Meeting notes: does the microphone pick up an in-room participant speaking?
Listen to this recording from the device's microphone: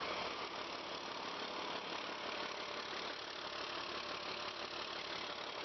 No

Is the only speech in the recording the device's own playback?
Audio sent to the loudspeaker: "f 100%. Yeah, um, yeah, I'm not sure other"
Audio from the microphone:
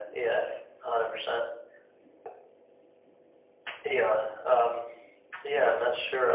Yes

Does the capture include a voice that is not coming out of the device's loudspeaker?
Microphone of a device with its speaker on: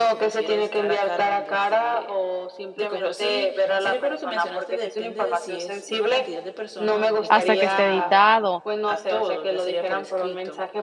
Yes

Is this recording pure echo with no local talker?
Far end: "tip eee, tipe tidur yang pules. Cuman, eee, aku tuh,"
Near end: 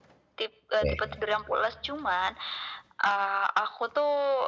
No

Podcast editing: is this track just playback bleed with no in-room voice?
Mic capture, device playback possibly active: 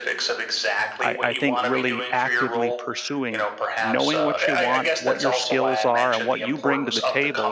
No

